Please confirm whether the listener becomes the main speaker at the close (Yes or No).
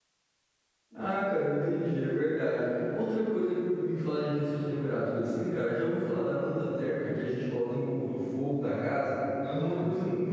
No